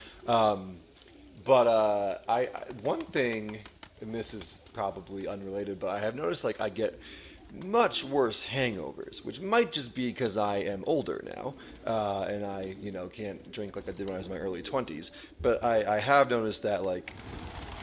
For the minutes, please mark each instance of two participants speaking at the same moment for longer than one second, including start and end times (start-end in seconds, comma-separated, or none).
none